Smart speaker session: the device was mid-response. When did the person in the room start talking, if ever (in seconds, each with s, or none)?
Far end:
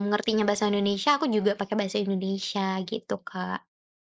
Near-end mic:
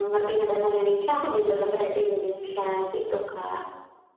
none